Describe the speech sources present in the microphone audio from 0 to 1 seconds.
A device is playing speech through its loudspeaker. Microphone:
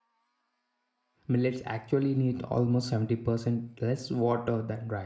neither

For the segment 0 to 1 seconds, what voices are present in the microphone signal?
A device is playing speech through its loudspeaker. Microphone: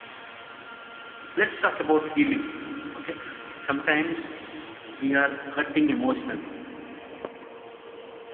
neither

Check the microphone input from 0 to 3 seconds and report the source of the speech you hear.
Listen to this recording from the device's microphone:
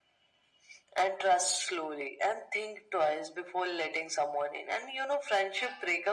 echo only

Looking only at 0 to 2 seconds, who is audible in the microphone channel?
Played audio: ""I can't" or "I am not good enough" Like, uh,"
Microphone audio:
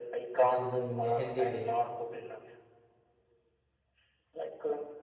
both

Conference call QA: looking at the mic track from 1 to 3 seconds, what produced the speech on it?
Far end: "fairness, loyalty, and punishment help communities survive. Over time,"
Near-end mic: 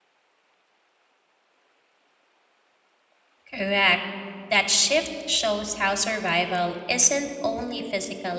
neither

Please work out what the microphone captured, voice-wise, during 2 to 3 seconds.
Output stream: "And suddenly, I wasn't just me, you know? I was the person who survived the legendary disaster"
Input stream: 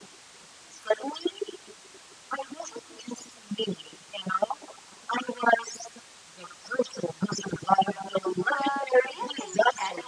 echo only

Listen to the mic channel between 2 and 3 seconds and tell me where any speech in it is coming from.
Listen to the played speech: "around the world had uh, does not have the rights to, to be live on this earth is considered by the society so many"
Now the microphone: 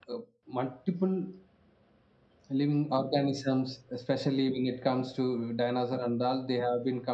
user only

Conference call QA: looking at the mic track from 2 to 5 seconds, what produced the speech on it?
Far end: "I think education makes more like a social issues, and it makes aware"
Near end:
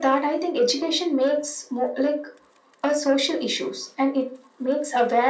echo only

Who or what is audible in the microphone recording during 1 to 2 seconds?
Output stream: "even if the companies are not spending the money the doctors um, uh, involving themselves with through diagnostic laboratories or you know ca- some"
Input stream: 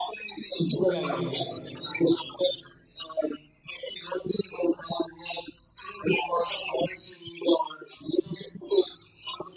both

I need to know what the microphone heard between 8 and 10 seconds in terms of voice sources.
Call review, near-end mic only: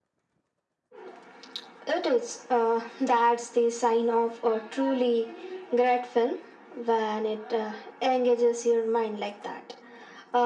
echo only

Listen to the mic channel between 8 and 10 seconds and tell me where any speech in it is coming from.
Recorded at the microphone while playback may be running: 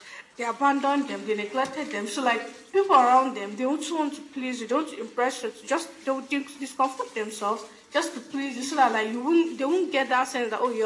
echo only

